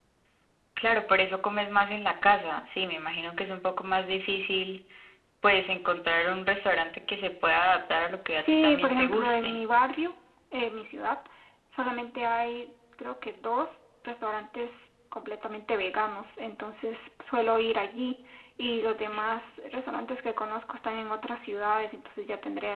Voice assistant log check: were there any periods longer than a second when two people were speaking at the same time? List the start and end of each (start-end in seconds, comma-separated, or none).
8.3-9.6